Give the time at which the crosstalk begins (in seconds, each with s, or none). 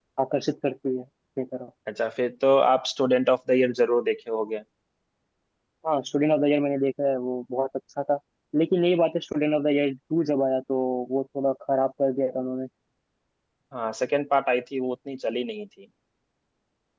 none